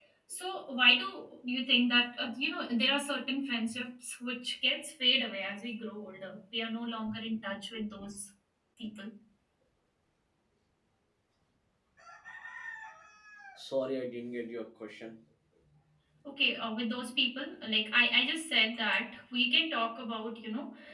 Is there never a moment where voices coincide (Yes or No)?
Yes